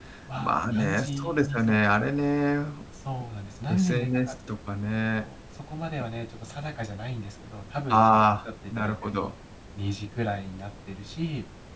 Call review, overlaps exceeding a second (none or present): present